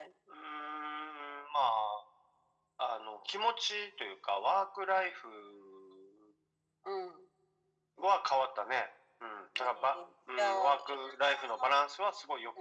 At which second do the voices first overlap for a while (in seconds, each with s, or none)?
9.6 s